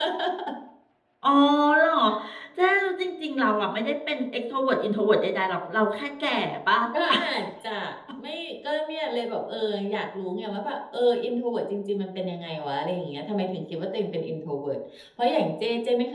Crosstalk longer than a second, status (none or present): none